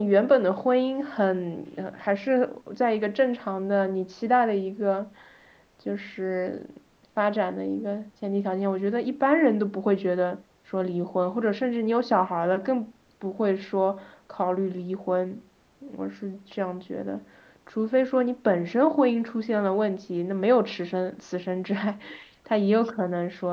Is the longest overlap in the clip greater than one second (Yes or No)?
No